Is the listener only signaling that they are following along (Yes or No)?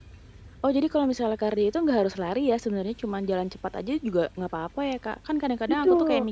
Yes